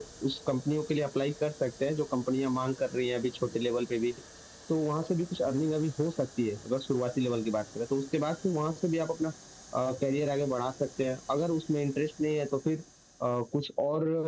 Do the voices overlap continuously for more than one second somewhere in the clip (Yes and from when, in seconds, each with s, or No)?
No